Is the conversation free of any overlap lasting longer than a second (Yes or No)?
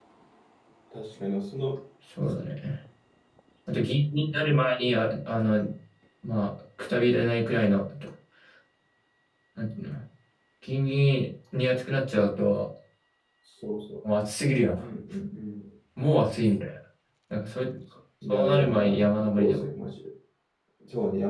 No